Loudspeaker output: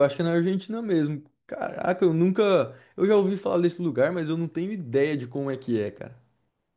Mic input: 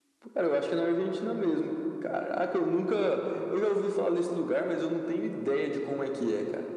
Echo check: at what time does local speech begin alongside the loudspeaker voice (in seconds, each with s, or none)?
none